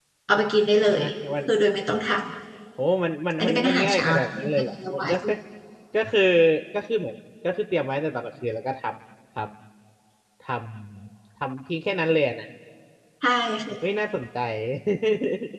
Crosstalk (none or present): present